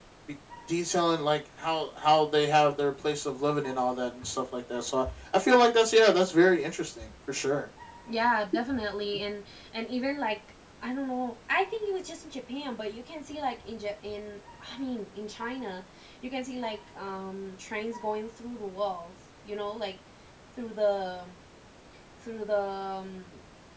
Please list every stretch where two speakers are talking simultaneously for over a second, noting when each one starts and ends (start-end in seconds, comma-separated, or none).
none